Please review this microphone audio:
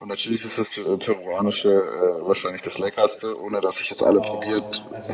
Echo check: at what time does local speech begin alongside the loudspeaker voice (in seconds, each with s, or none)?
4.1 s